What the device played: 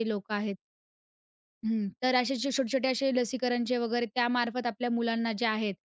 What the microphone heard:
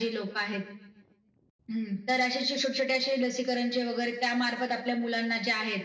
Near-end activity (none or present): none